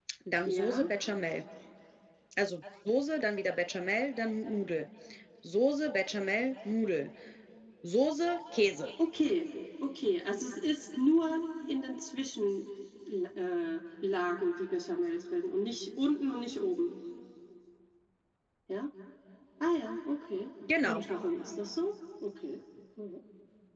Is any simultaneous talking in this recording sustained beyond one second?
No

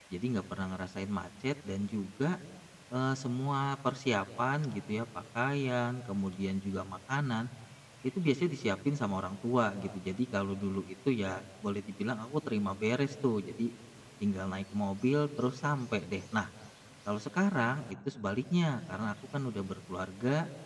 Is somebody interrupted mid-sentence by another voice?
No

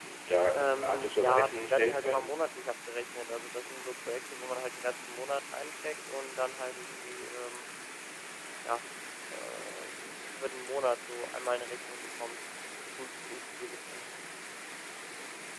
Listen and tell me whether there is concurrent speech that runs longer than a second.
Yes, from 0.6 s

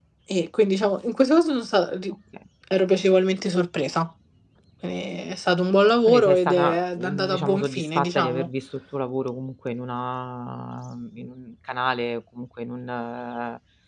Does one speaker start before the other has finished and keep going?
Yes, from 6.1 s

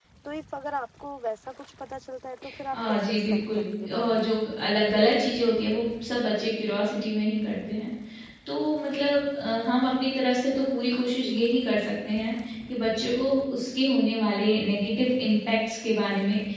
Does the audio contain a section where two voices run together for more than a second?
Yes, from 2.7 s

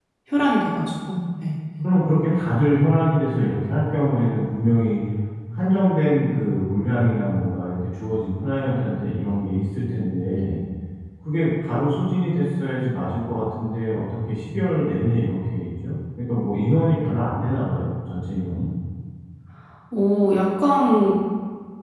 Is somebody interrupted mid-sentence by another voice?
No

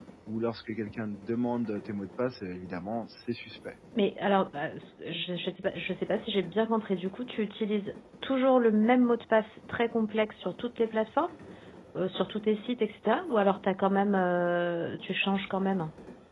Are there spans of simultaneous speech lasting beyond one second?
No

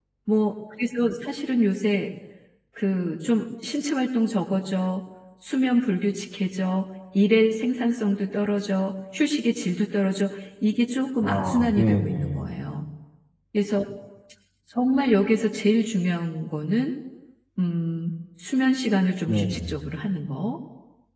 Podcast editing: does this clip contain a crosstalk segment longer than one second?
Yes, from 11.2 s

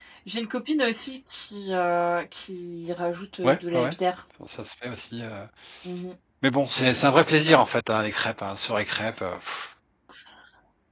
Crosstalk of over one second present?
No

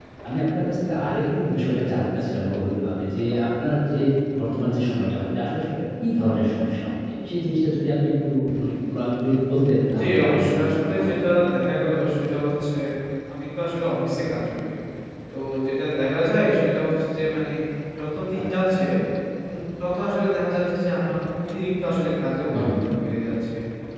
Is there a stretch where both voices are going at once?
Yes, from 10.0 s

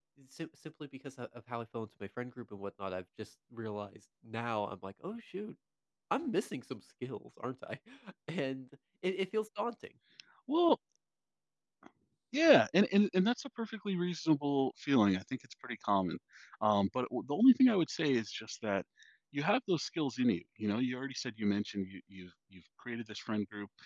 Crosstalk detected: No

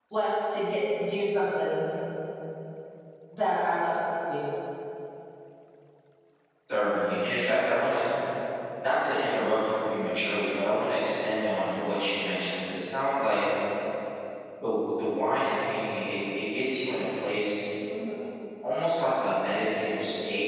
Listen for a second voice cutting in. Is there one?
No

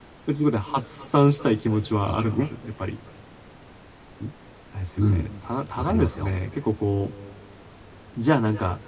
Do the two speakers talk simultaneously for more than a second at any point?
No

